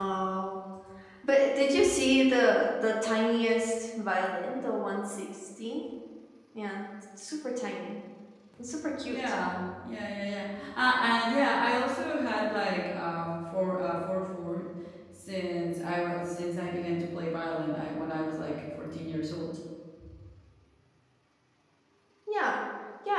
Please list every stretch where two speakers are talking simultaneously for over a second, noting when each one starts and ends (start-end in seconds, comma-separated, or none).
none